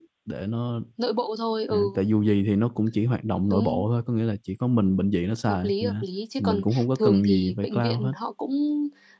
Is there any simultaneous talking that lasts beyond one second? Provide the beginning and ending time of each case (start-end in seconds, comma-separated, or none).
6.4-8.1